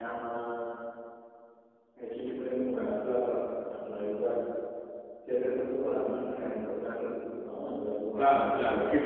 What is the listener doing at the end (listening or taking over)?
taking over